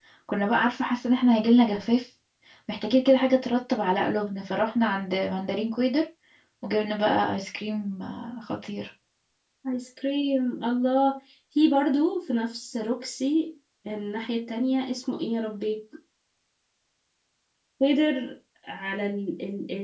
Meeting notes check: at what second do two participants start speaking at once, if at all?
none

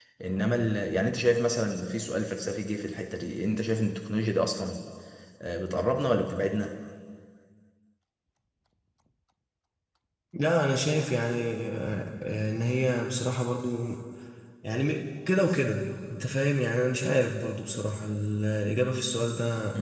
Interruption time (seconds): none

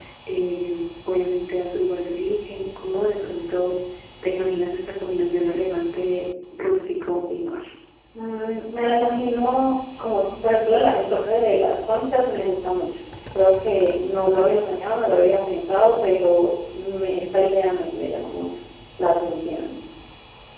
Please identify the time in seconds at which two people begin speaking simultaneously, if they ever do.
none

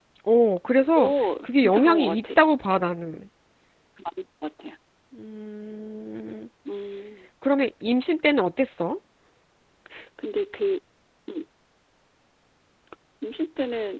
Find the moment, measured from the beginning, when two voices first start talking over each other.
0.9 s

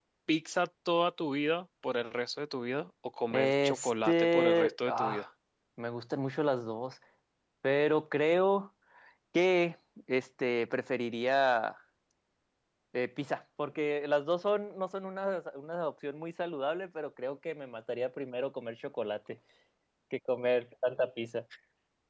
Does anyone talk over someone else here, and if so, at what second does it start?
3.3 s

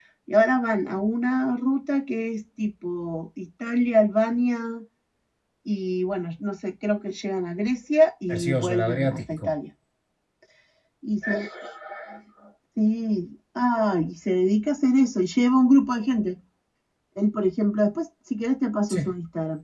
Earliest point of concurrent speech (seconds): 8.3 s

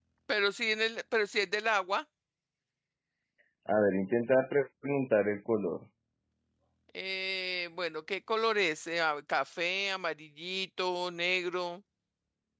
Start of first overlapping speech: none

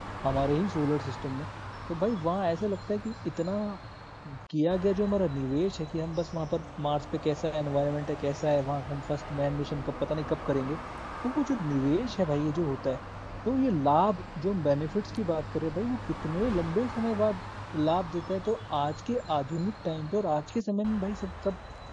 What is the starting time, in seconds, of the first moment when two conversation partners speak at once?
none

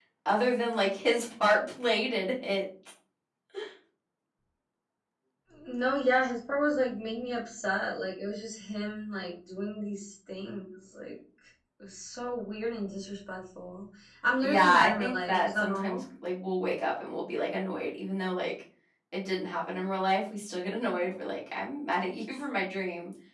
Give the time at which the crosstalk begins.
14.4 s

